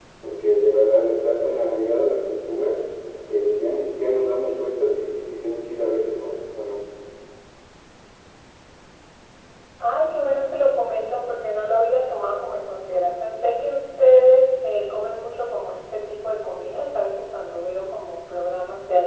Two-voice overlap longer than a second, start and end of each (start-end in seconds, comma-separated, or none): none